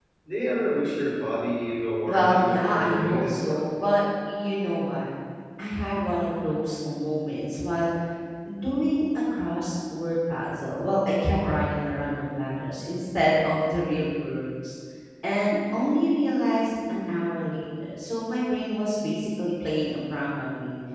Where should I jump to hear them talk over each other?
2.1 s

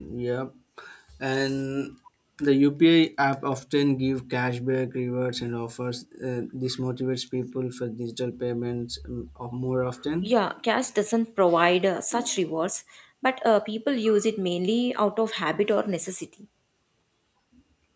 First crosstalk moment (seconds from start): none

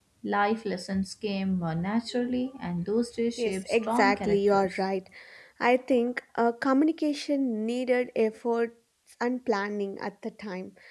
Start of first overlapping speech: 3.4 s

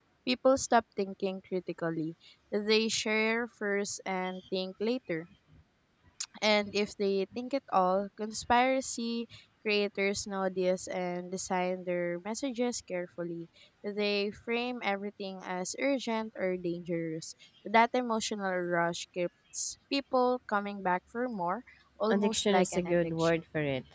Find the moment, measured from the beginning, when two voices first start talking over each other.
22.1 s

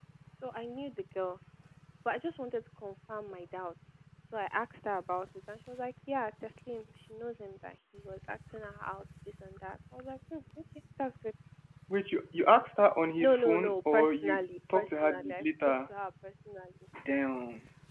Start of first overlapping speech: 13.2 s

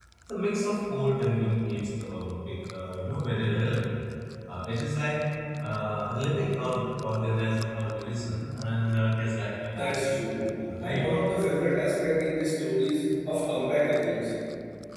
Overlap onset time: 9.8 s

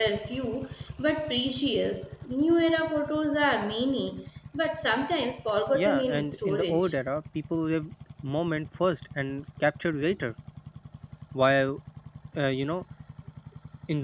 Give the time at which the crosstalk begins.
5.7 s

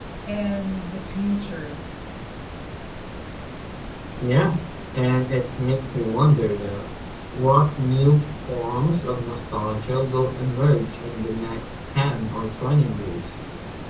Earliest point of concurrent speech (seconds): none

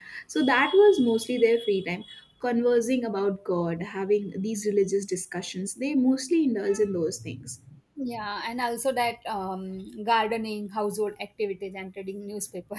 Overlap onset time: none

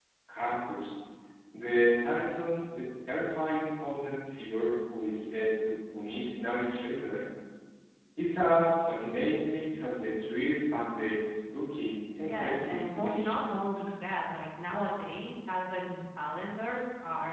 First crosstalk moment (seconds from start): 12.2 s

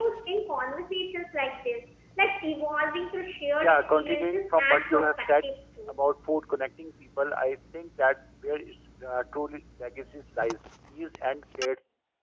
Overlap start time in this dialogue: 3.6 s

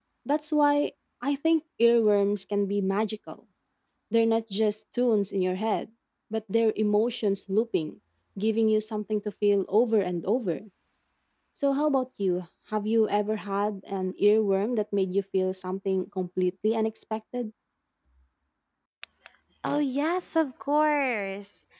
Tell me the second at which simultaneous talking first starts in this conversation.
none

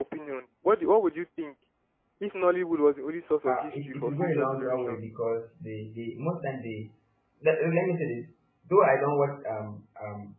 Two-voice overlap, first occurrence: 3.5 s

